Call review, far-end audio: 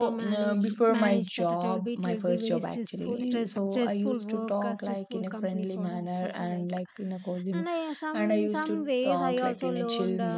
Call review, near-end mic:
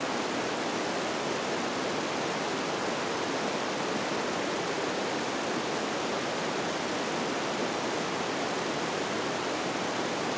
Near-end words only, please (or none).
none